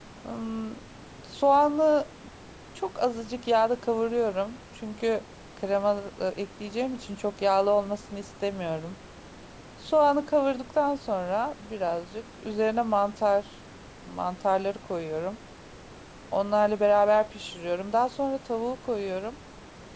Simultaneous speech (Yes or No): No